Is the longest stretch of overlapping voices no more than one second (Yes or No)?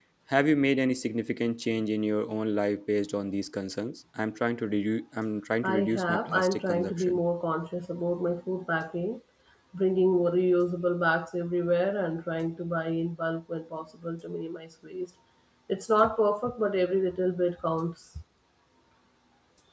No